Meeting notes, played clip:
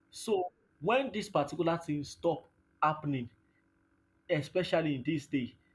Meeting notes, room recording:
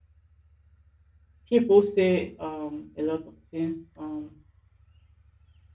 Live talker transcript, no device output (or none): People say um, a lot of things um,